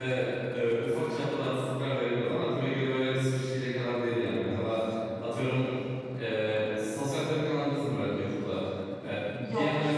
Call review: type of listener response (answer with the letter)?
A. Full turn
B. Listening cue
B